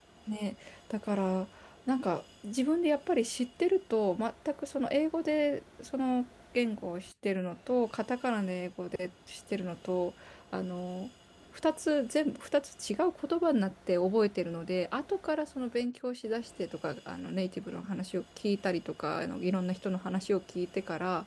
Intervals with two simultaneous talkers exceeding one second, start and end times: none

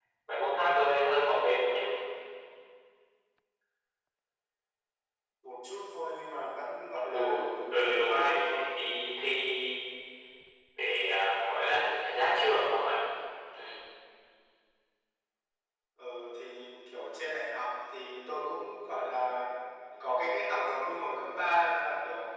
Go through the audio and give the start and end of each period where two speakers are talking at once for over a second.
7.0-8.7

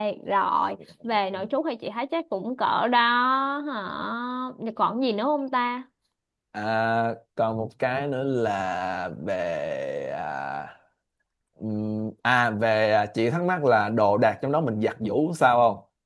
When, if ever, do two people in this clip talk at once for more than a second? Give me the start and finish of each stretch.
none

